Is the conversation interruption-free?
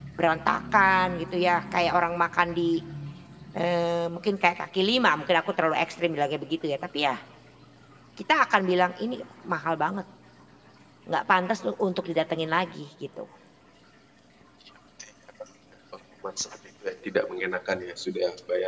Yes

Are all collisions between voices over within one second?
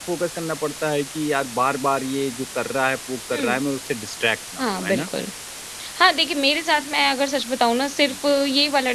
Yes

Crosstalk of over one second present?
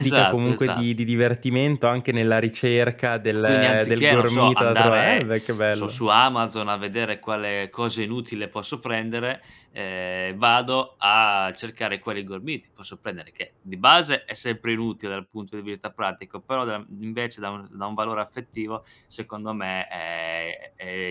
Yes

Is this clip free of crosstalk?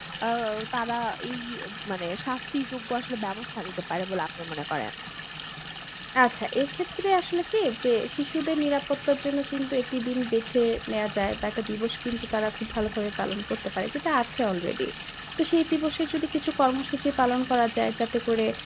Yes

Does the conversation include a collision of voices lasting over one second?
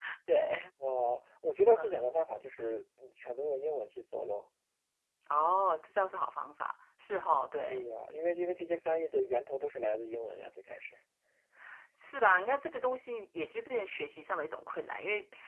No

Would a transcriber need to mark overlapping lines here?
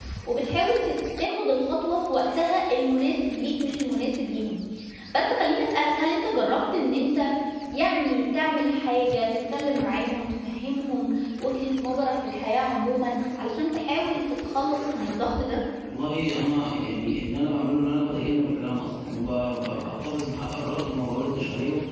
No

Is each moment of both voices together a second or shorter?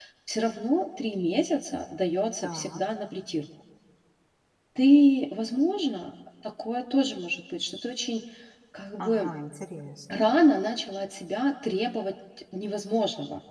Yes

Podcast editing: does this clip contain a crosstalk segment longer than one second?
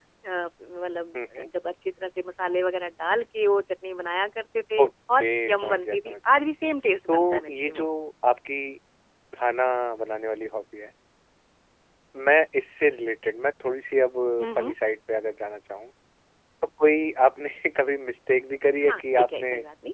Yes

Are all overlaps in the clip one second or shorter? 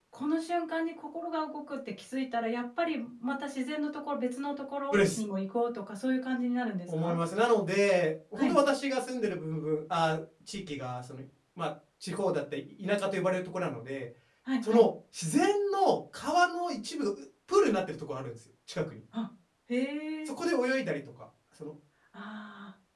Yes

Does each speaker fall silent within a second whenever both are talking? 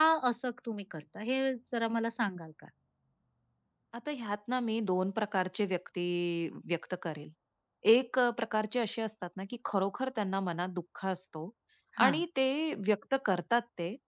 Yes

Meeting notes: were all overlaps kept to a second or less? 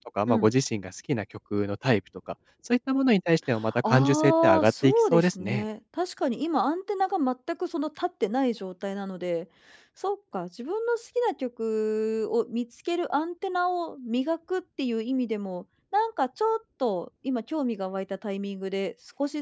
No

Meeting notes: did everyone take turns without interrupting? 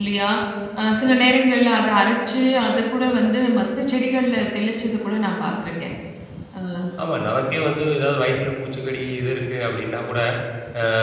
Yes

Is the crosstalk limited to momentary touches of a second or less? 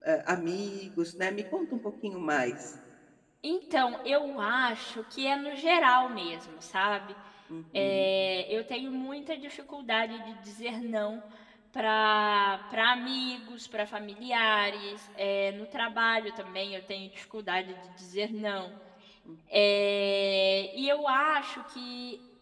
Yes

